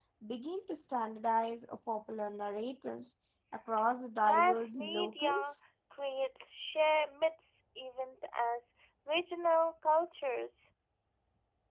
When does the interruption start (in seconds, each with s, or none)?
4.2 s